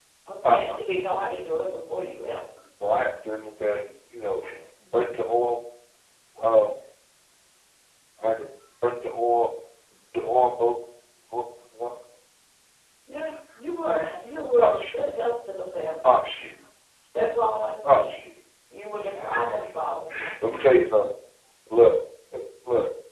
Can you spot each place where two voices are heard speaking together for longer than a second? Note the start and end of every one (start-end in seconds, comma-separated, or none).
none